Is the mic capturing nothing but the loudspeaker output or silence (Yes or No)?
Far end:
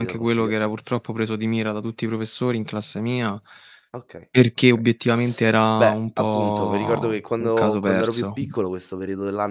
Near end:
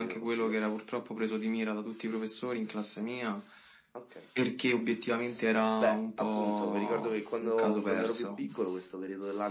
Yes